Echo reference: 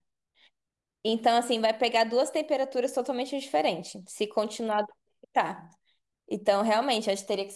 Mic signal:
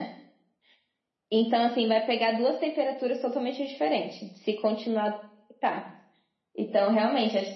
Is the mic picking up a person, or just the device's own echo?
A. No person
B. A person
A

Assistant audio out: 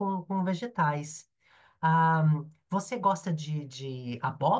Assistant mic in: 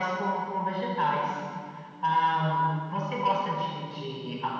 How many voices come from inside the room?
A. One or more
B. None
B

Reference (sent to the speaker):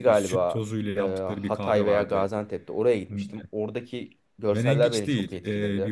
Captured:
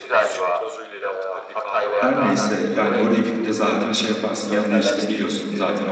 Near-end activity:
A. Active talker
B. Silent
A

